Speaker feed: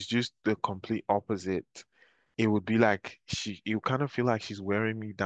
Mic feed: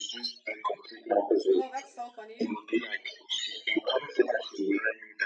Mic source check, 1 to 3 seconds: both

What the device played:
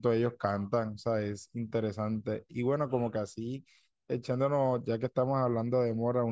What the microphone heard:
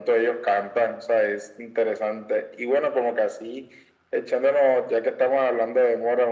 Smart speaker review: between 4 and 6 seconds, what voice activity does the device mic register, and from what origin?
echo only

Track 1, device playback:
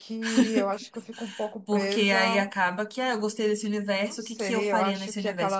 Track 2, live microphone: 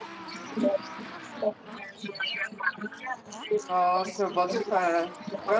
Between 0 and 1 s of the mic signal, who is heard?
echo only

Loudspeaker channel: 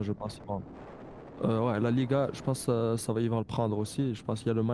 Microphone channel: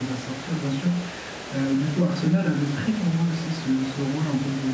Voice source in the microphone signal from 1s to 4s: user only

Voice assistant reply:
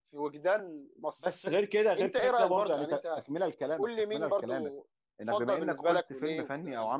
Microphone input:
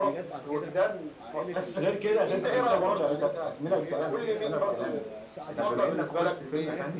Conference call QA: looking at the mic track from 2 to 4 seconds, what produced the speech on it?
both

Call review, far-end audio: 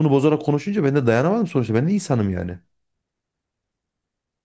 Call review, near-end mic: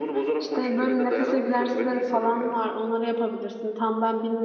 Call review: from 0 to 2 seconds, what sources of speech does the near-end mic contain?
both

